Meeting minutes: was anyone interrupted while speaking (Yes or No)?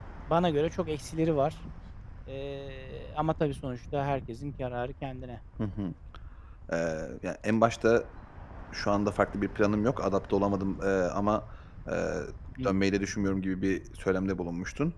No